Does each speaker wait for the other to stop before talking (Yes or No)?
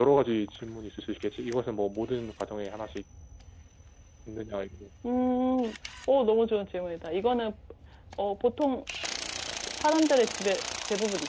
Yes